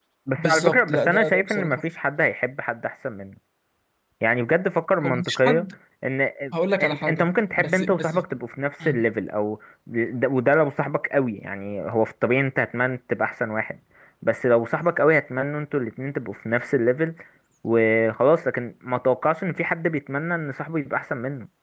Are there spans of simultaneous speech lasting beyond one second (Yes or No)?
Yes